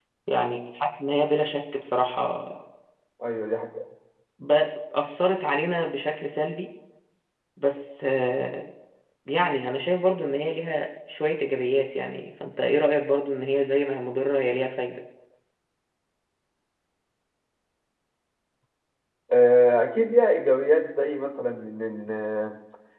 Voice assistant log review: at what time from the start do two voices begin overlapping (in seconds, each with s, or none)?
none